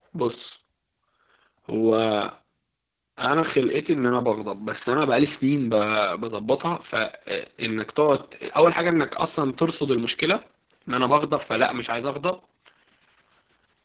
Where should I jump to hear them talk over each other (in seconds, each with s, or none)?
none